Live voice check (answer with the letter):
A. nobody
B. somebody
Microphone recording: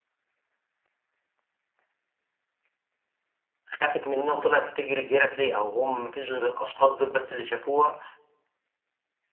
B